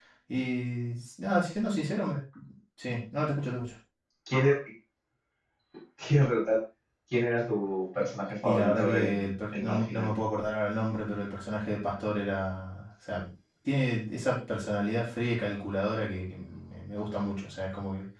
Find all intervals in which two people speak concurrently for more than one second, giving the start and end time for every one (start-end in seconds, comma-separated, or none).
8.4-10.1